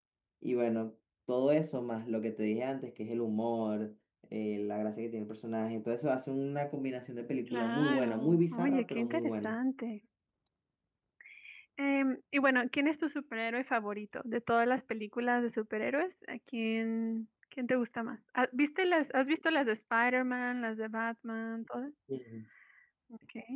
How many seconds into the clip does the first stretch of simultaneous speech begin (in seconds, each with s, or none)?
7.5 s